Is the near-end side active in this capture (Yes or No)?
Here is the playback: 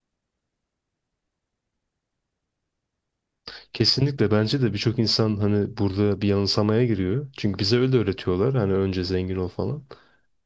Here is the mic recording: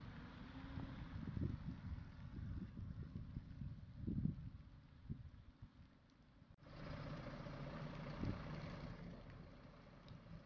No